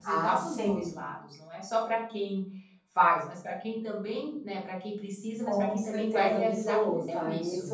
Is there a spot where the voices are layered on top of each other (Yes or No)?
Yes